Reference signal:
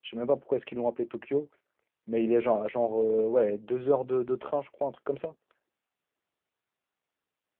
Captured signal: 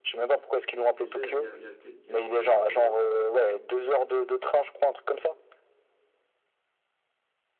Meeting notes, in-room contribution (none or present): present